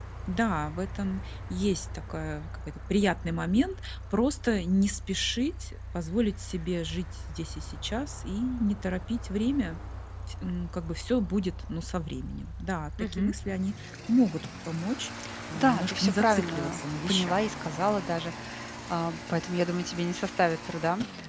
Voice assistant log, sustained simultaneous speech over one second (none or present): present